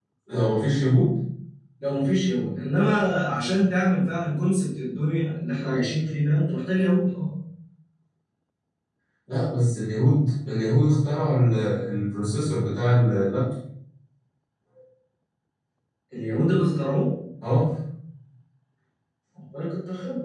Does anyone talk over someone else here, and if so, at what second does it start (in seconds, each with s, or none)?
none